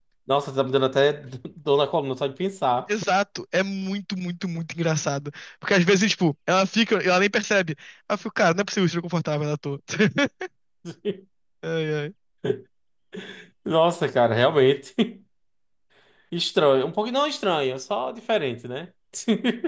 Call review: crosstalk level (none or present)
none